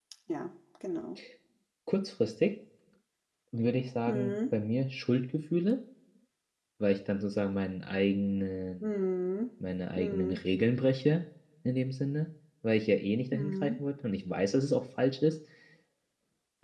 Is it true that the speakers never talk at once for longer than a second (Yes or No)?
Yes